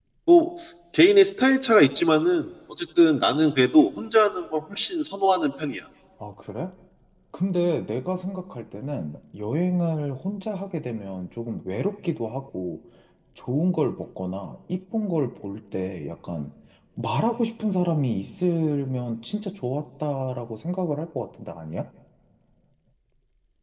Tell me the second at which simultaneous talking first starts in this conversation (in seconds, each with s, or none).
none